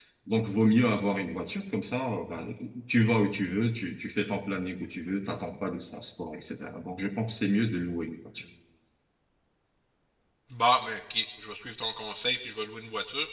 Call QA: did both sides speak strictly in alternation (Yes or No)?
Yes